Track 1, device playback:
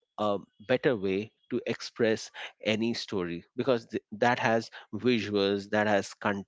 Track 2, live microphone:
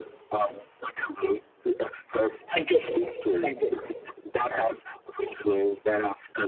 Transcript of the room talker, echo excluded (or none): Thank you. Thank you.